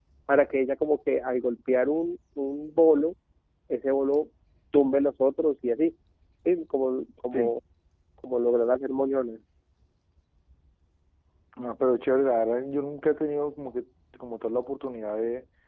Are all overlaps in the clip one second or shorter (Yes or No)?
Yes